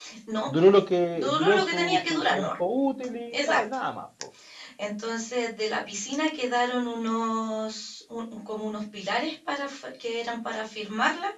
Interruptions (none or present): present